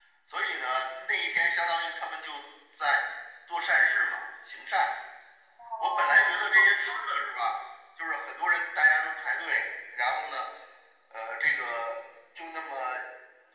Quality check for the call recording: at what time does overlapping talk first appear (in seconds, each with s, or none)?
5.8 s